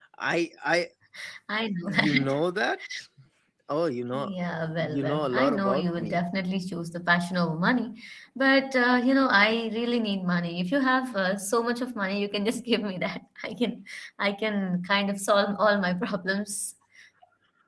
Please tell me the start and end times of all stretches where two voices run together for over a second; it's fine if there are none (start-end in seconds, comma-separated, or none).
4.8-6.2